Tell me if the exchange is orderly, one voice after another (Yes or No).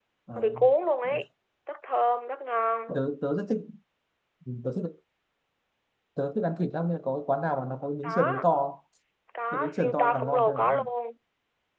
No